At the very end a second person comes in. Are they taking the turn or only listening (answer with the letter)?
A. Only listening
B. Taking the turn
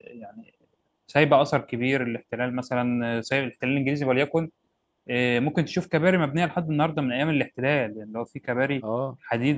B